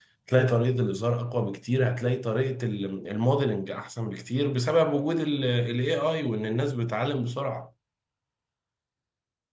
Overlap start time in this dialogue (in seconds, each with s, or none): none